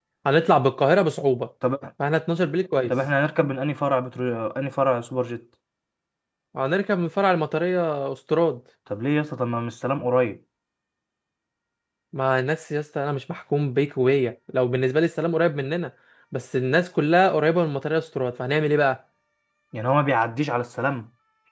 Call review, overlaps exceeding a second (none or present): none